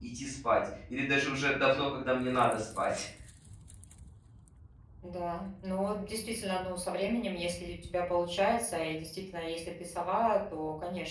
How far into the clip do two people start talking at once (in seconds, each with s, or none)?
none